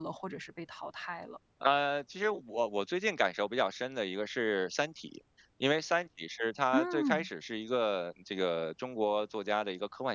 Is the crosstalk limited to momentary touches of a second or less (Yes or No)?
Yes